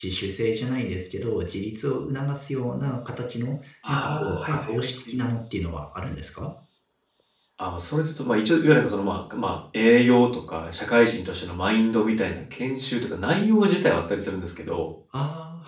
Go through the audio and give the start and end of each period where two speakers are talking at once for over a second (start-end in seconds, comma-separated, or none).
3.9-5.2